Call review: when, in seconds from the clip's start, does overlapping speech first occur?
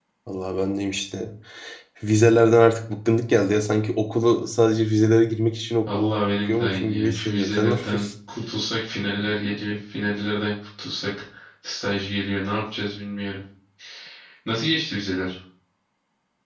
6.5 s

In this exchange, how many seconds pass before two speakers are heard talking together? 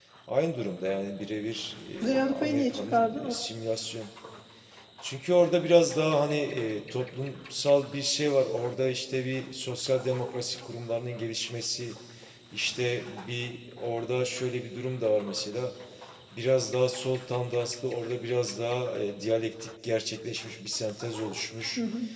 2.0 s

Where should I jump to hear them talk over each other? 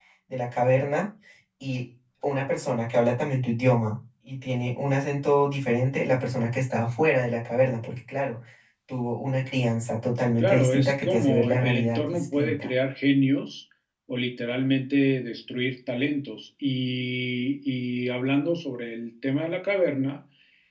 10.4 s

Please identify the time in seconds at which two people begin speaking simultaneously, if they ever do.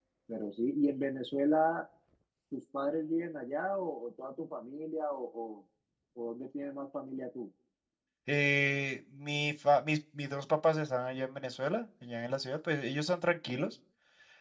none

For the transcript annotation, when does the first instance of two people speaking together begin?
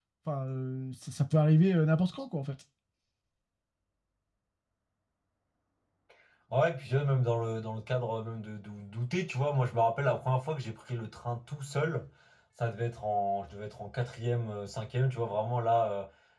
none

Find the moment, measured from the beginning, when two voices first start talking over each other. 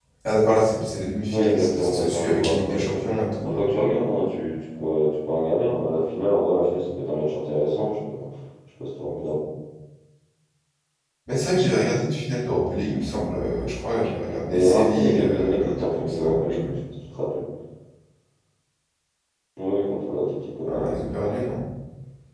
1.3 s

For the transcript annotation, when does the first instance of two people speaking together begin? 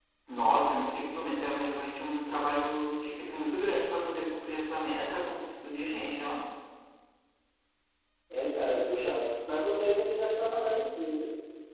none

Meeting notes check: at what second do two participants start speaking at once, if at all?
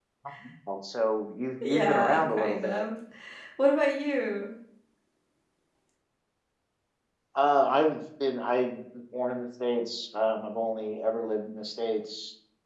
1.6 s

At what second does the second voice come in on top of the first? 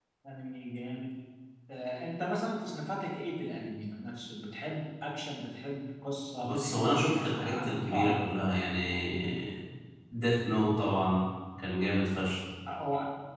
6.4 s

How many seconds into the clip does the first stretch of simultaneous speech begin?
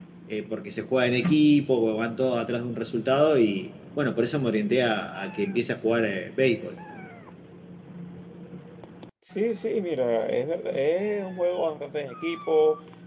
none

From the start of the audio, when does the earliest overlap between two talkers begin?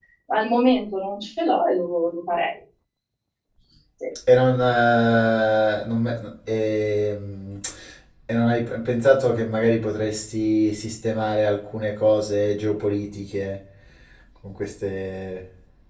none

